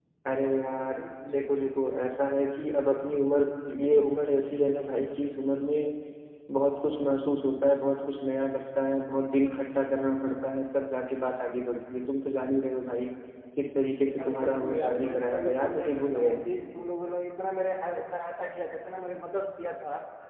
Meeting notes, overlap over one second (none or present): present